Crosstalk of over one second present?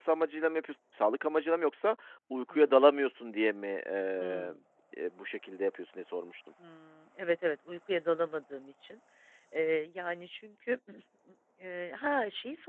No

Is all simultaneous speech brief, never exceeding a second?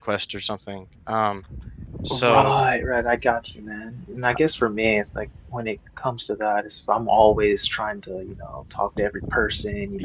Yes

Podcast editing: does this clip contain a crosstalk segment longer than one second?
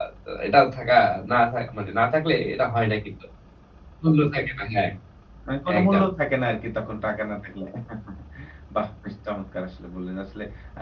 No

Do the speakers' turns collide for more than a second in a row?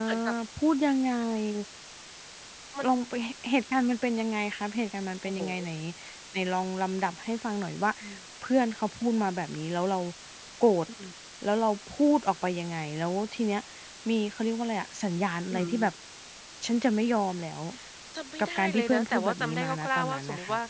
Yes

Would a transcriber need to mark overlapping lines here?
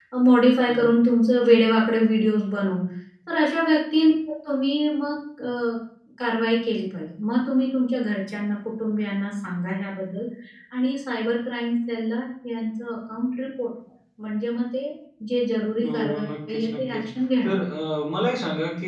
Yes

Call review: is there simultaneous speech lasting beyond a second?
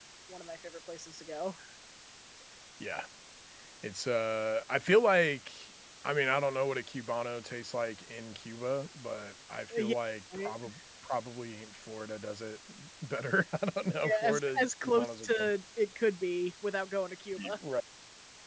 Yes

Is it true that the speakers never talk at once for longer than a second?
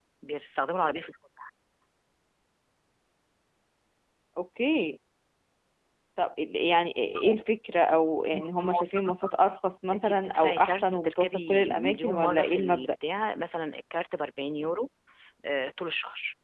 No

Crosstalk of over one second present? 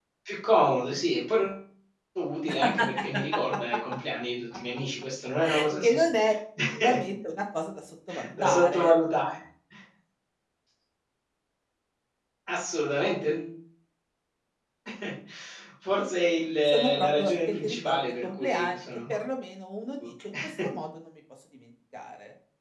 Yes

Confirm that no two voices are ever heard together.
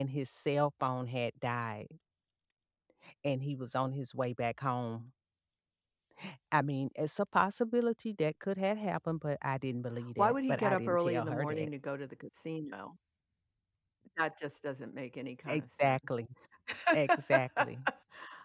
No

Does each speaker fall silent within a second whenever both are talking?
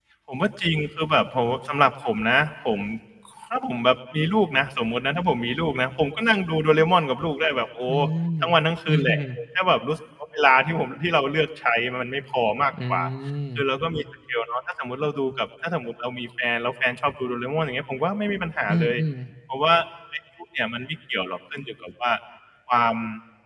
Yes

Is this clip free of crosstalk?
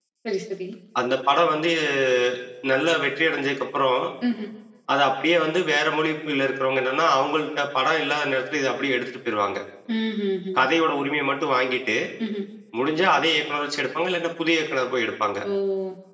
Yes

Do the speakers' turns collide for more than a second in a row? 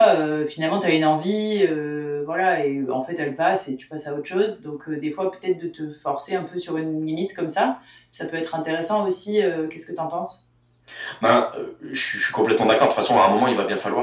No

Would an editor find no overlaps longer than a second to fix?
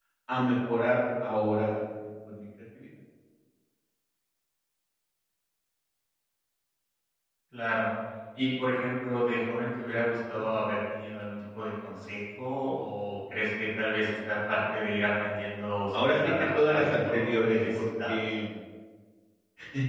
No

